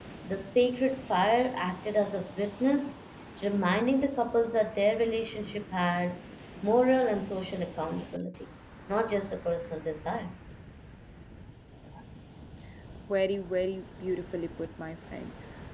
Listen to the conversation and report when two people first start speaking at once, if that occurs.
none

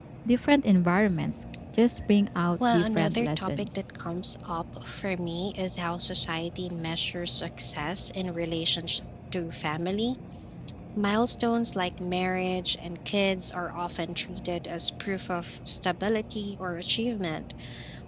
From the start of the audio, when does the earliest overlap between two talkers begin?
2.6 s

